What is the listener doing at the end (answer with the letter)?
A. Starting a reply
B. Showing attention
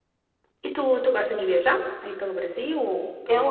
A